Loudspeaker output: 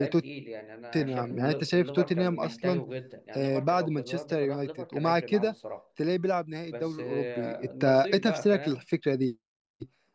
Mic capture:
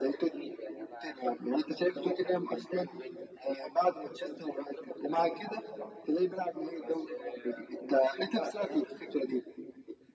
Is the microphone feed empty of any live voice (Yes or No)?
Yes